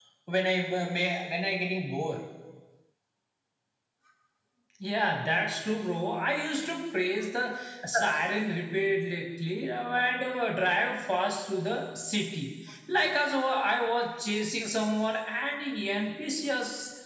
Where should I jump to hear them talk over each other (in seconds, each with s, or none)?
none